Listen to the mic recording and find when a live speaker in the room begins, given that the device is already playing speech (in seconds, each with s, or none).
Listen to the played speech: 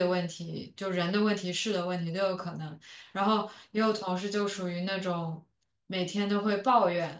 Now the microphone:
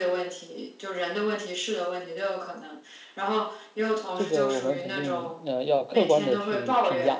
4.1 s